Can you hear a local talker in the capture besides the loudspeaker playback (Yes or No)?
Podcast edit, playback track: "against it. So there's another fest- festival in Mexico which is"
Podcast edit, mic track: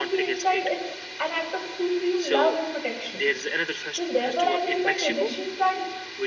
Yes